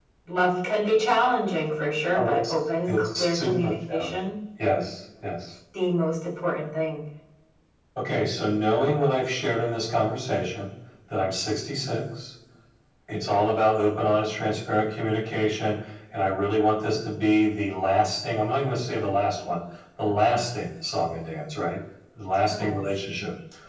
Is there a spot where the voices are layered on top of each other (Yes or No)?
Yes